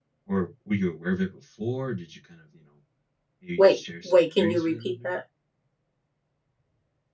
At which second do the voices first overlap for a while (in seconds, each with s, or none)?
3.6 s